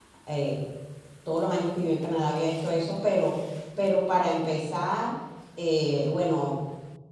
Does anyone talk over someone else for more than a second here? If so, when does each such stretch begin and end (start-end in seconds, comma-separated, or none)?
none